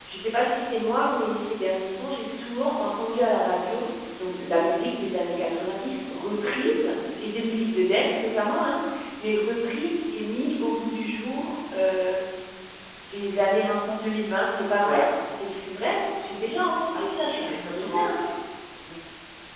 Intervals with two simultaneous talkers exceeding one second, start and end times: 17.0-18.2

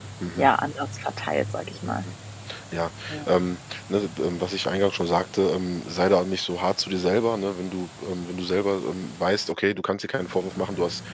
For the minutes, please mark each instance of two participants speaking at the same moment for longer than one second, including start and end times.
none

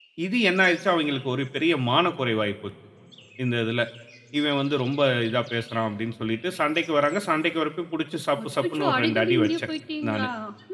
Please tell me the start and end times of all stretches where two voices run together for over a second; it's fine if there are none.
8.4-9.7

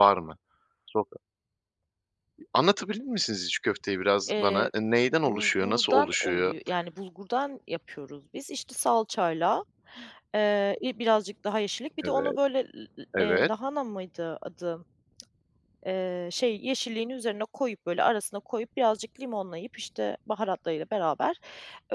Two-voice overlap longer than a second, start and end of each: 5.3-6.5

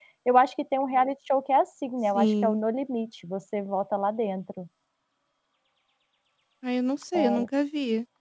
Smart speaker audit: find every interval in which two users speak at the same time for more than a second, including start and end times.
none

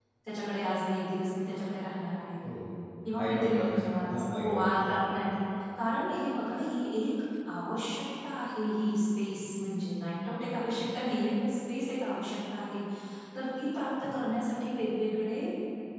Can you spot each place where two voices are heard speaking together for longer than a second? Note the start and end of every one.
3.2-5.0

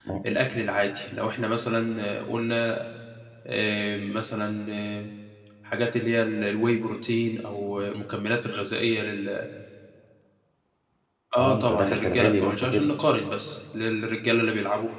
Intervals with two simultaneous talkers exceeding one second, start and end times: 11.4-12.9

